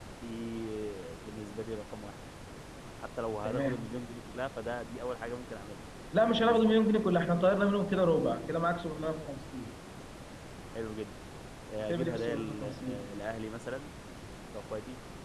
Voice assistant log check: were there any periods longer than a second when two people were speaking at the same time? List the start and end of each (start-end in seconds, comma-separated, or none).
11.8-13.1